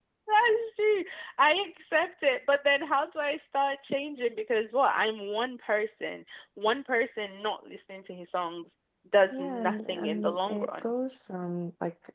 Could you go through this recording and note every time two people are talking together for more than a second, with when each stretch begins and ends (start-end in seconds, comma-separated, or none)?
9.3-10.8